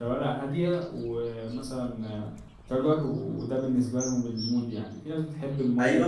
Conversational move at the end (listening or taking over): taking over